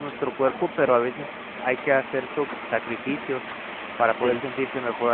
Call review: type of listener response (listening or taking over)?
listening